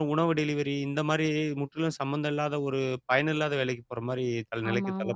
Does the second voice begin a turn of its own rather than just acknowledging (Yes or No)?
Yes